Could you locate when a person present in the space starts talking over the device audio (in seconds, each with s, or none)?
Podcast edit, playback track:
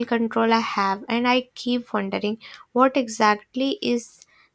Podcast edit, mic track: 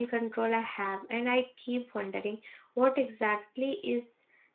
none